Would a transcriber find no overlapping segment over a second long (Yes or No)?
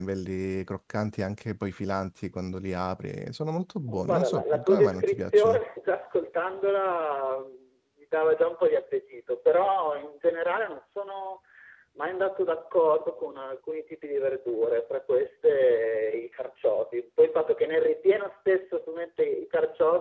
No